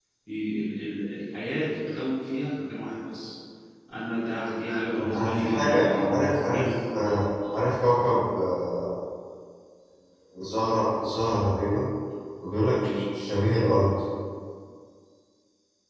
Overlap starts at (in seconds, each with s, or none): 5.1 s